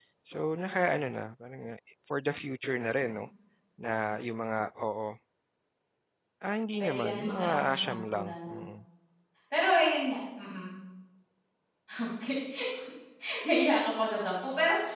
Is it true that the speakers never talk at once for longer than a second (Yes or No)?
No